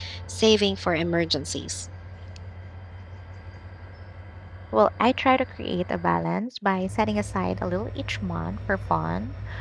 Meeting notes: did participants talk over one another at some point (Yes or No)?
No